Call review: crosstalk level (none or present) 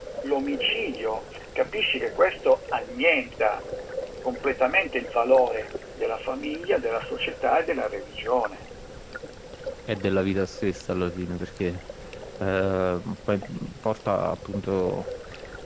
none